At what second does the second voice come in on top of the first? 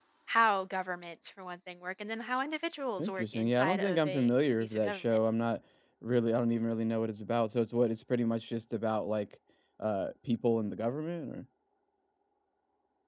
3 s

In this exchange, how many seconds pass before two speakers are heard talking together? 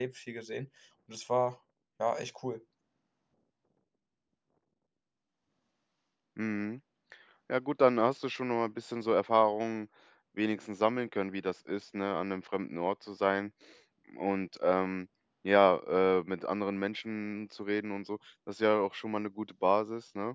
none

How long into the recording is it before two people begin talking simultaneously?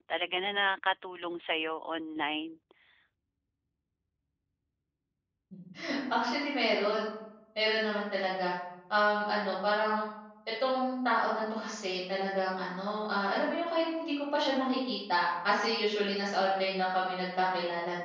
none

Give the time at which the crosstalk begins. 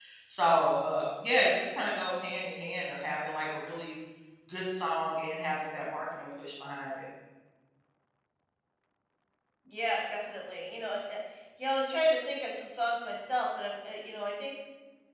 none

